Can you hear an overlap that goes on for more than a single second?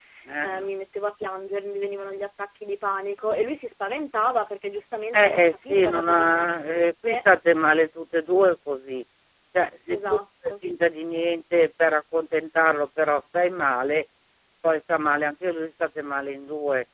Yes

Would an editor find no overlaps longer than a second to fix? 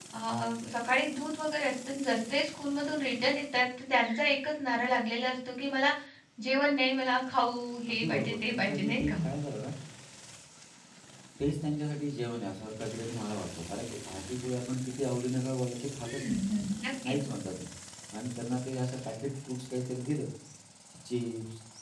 No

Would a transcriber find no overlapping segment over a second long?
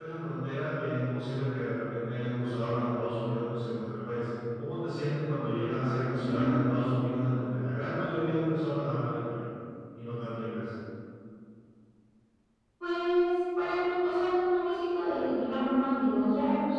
Yes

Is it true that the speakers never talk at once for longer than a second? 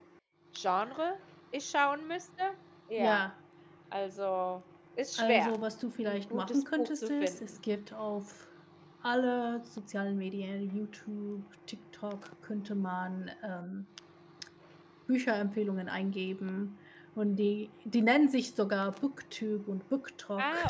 No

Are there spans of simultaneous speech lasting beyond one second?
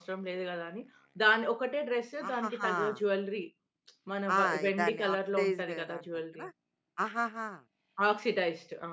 Yes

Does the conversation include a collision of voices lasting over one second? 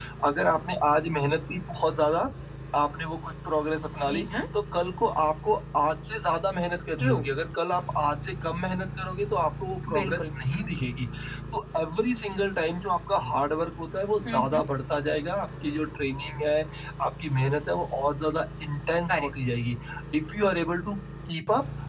No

